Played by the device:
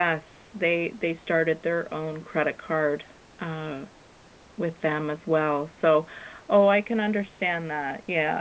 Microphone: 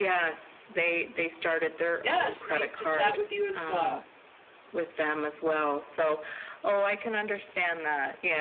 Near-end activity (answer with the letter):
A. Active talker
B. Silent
A